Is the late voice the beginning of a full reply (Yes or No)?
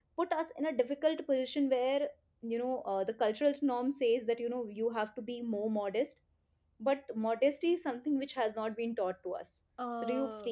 Yes